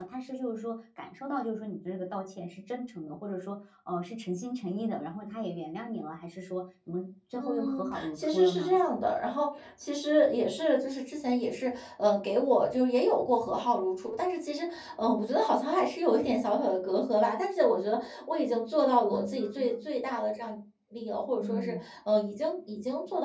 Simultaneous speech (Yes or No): Yes